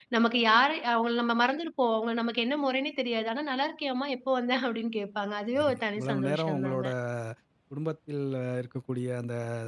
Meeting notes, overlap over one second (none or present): present